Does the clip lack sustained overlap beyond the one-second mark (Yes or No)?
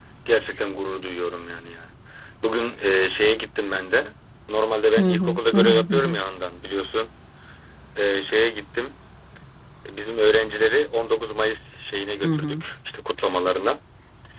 No